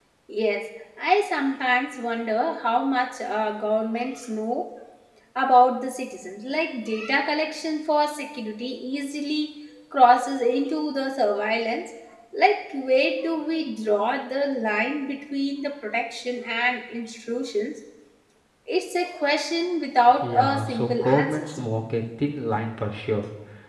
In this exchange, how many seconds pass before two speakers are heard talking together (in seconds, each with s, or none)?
20.2 s